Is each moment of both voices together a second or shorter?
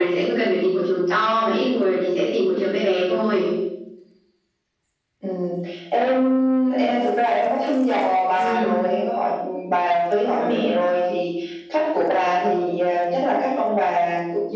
Yes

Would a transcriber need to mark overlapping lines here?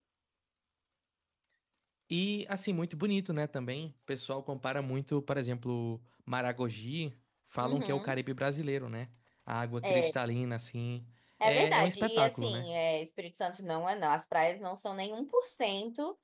Yes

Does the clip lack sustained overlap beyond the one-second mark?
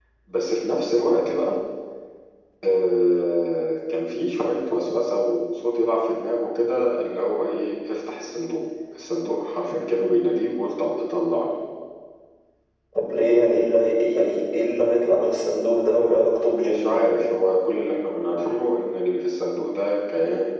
No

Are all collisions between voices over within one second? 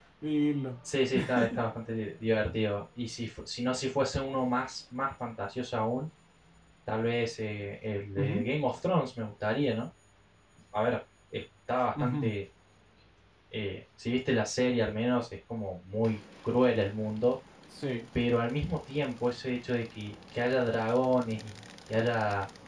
Yes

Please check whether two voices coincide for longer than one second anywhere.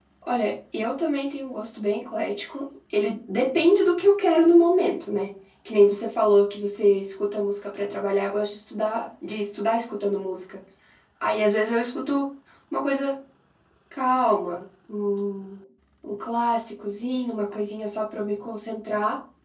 No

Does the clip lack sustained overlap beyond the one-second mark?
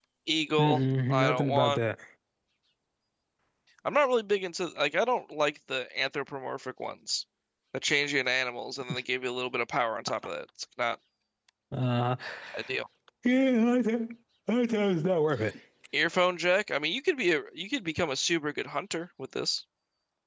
No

